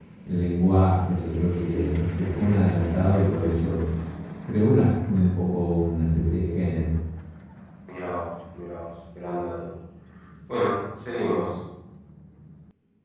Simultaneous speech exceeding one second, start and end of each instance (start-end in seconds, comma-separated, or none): none